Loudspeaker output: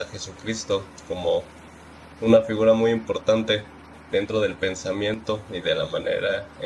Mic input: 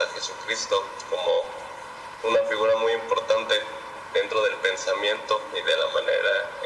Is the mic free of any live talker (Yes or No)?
Yes